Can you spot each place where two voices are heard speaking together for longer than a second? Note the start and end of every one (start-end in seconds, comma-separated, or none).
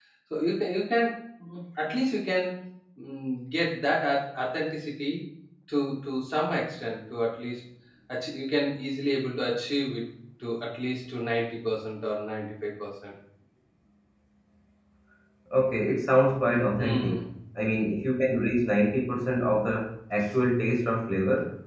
none